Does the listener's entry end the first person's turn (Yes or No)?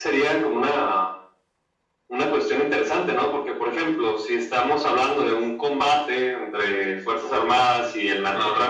No